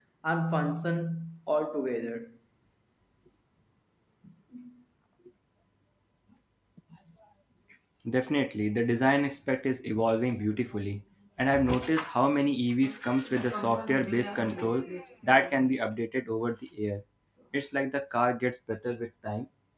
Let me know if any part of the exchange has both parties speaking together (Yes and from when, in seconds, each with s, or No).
No